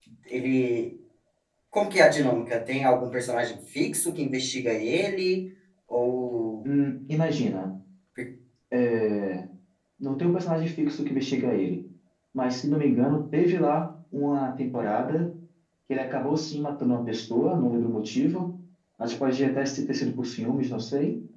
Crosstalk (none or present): none